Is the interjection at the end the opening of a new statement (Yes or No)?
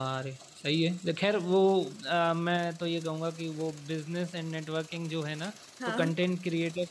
No